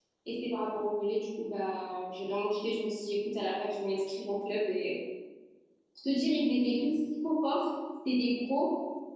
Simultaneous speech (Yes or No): No